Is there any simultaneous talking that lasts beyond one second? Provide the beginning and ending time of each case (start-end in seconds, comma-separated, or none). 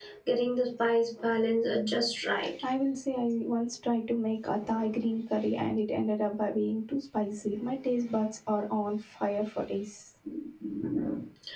none